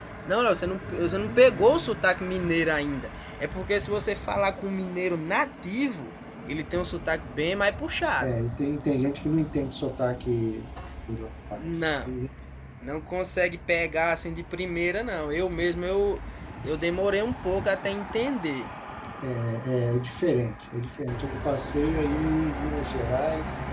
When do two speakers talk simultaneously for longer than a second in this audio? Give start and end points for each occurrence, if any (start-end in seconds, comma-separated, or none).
none